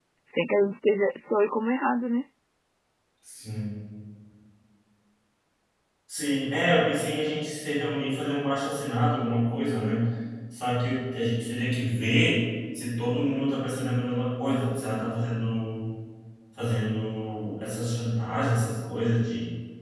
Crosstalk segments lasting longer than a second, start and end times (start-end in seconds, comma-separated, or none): none